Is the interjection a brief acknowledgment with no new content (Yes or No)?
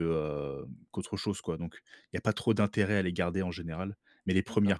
Yes